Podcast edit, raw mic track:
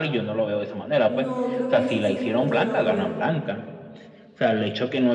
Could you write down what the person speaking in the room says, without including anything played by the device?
No, creo que esa sí no la he llegado a ver.

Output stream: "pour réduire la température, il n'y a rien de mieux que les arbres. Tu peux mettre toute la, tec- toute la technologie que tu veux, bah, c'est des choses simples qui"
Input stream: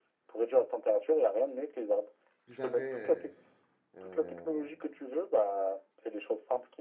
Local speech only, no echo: vous avez euh,

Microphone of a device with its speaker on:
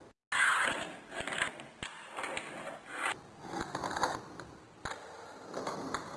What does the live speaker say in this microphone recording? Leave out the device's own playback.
none

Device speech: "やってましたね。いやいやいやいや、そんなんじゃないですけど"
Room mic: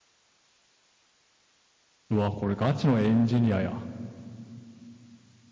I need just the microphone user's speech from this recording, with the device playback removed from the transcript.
うわ、これガチのエンジニアや。

